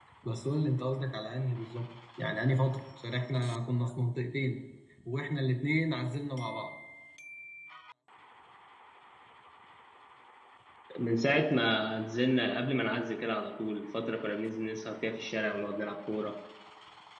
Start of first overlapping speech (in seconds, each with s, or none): none